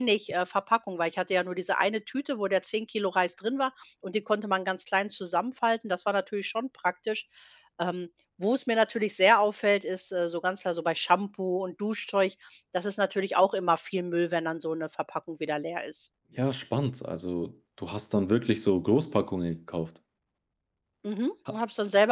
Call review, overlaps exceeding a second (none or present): none